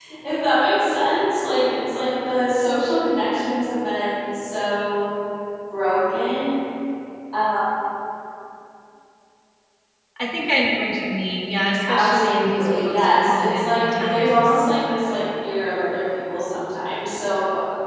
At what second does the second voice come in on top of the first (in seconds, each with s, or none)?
11.9 s